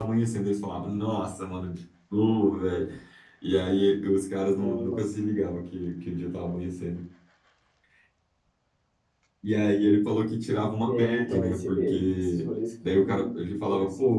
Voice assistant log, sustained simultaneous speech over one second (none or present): present